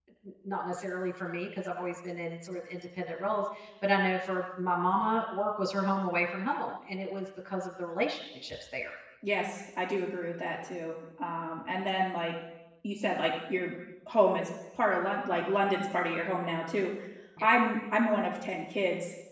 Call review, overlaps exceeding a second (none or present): none